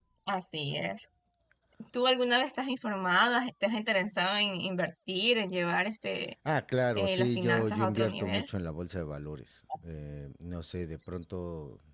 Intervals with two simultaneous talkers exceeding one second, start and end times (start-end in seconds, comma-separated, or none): 7.0-8.5